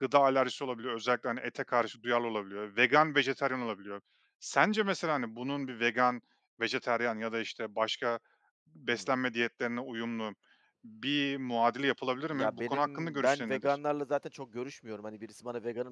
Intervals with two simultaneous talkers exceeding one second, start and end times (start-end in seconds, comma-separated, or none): 12.3-13.8